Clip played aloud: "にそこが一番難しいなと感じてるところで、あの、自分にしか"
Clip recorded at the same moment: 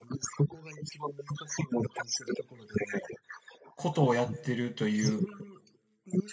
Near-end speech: present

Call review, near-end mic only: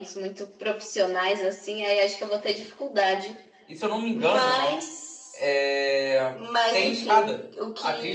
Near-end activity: present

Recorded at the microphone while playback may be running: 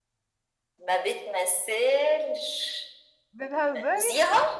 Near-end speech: present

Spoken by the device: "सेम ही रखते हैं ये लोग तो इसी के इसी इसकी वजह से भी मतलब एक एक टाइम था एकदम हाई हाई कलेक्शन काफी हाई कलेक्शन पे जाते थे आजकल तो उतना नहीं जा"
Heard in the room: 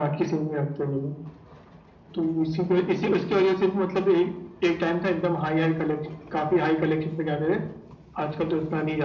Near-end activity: none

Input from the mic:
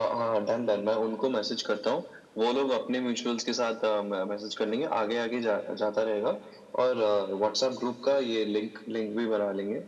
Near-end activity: none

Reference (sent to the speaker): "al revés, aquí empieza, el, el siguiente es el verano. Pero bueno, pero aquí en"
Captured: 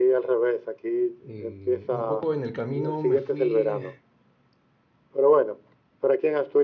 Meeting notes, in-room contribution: present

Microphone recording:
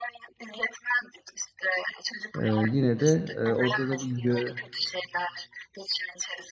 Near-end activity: present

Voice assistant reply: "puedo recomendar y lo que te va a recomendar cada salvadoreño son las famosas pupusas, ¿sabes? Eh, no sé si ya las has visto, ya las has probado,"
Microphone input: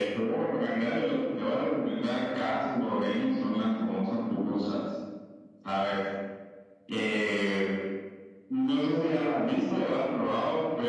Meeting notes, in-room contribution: none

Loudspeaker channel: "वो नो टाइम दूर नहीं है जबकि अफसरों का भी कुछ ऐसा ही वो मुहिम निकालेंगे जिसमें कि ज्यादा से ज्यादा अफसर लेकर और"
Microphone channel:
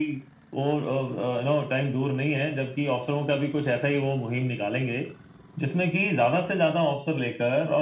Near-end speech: none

